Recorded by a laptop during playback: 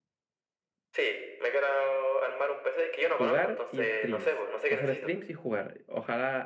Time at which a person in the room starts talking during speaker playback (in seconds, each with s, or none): 3.0 s